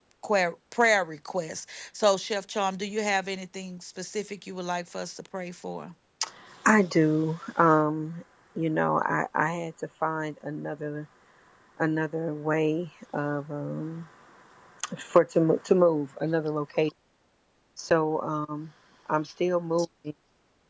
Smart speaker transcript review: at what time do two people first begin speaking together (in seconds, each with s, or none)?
none